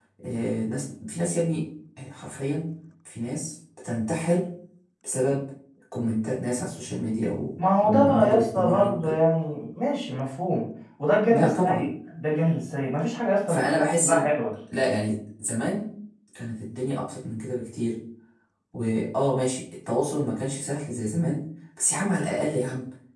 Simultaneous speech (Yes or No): Yes